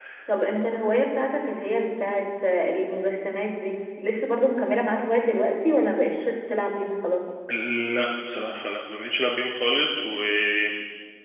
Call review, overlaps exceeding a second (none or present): none